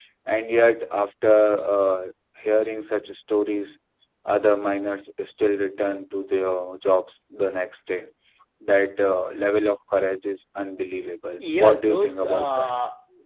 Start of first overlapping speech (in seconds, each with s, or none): 11.4 s